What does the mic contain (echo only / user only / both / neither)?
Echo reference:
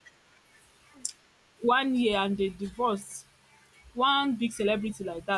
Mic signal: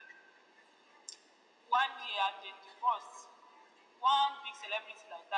echo only